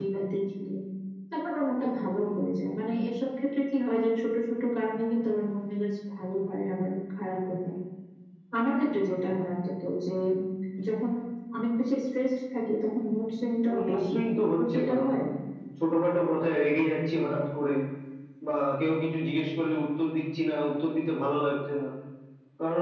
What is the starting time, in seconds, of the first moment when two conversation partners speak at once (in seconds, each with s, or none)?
13.7 s